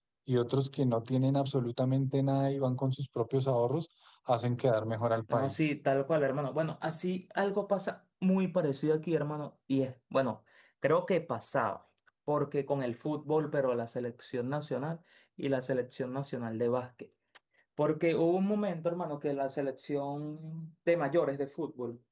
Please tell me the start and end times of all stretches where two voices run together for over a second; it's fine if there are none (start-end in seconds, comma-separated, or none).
none